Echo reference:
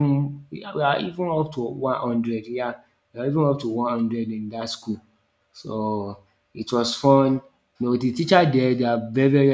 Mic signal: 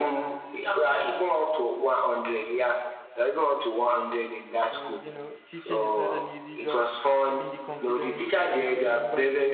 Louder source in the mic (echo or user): echo